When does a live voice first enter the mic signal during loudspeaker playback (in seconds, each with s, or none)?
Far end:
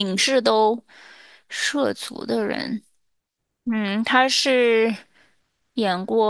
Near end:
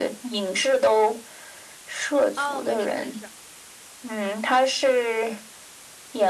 2.3 s